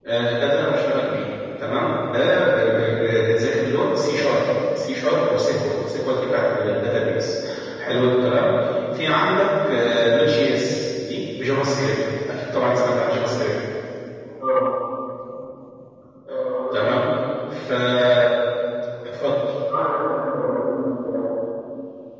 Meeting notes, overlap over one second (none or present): none